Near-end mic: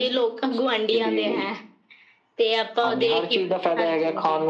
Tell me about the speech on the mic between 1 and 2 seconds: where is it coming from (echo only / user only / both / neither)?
echo only